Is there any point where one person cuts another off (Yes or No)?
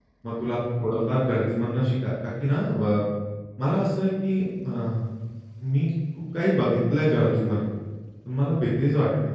No